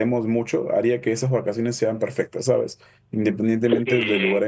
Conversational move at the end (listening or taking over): listening